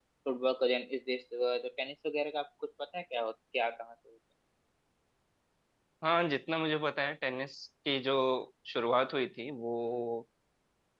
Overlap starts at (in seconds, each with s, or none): none